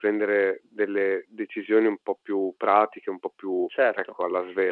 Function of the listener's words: taking over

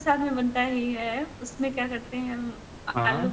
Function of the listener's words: listening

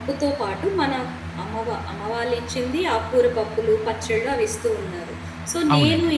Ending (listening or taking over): listening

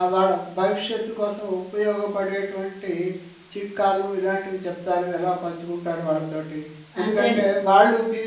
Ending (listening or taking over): listening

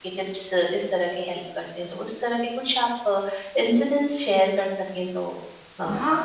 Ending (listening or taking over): taking over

